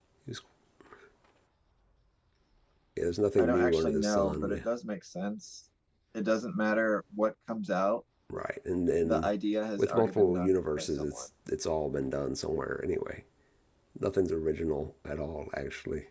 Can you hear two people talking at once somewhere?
Yes, from 3.4 s

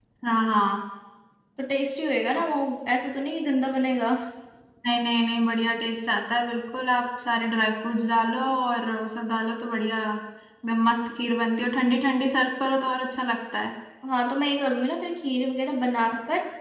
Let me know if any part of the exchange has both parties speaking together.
No

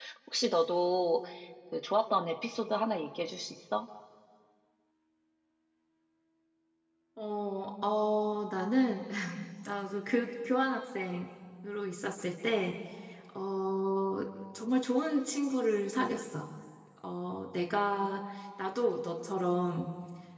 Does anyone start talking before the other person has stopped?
No

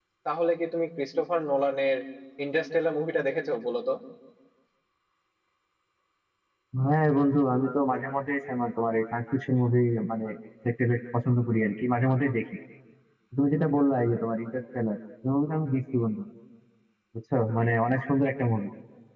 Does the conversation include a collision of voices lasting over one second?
No

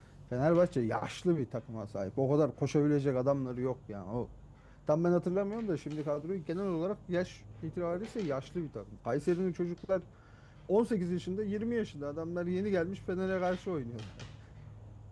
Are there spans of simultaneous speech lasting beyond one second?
No

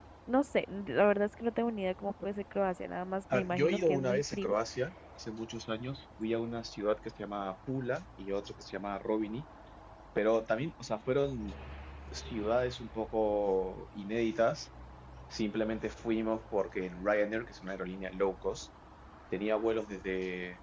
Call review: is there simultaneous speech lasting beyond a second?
Yes, from 3.3 s

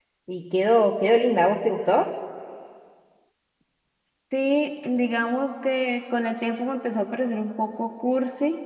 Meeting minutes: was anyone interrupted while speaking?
No

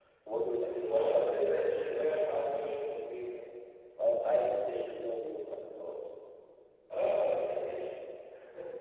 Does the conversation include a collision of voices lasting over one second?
Yes, from 0.8 s

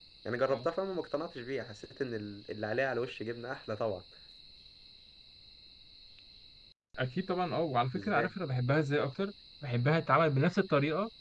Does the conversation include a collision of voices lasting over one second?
No

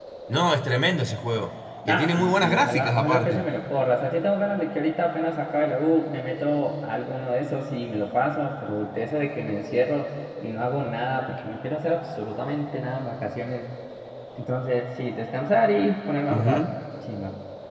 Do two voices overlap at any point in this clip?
Yes, from 1.9 s

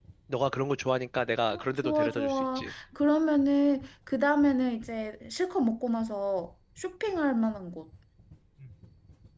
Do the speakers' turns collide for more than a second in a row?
Yes, from 1.5 s

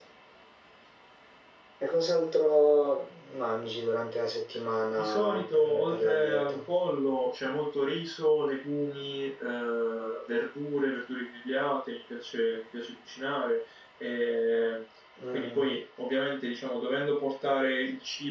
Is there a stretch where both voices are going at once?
Yes, from 5.0 s

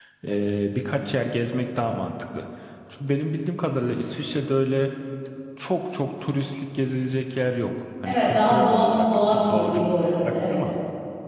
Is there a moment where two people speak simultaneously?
Yes, from 8.0 s

